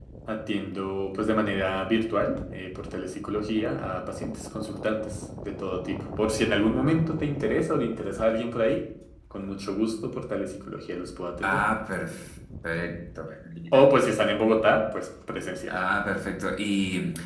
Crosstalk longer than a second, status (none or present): none